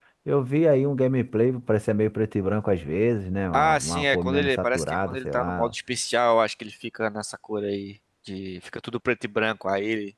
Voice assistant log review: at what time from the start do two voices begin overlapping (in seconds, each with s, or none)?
3.5 s